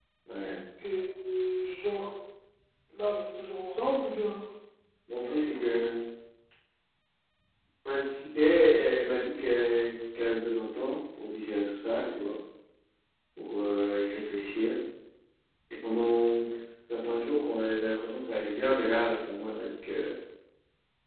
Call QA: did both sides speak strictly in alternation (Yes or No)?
Yes